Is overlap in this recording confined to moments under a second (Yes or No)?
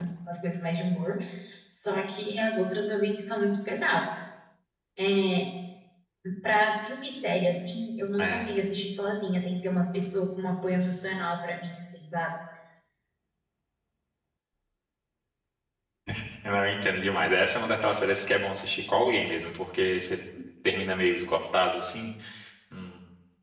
Yes